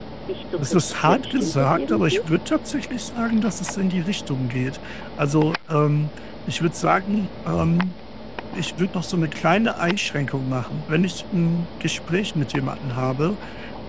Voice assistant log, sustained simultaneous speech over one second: present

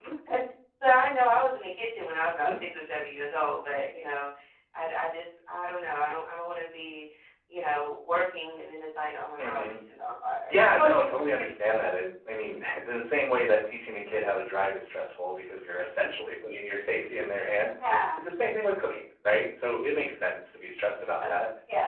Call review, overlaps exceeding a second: none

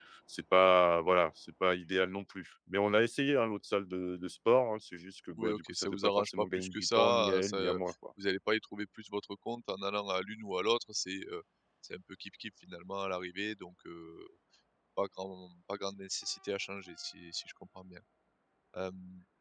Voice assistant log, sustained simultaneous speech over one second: present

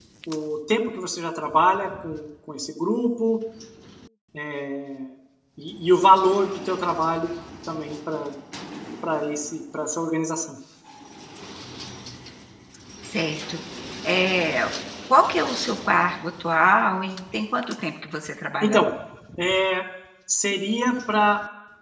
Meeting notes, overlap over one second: none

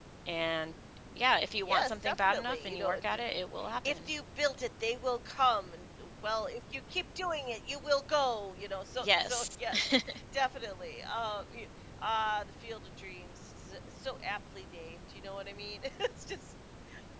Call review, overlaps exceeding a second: present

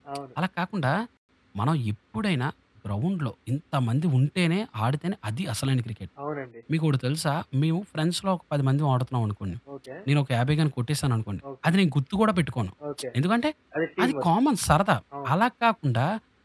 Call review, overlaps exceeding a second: none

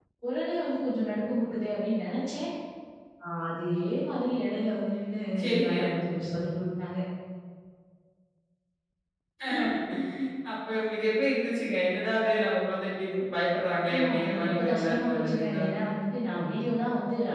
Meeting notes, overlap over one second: present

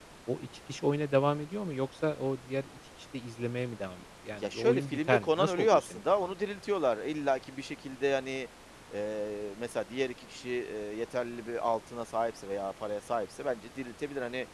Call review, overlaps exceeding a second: present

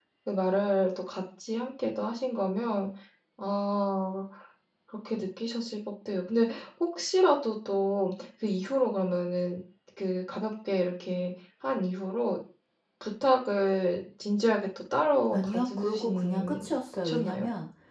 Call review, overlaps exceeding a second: present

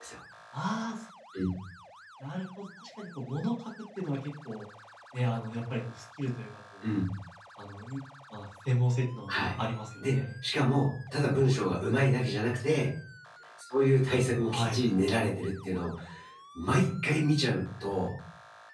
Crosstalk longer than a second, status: none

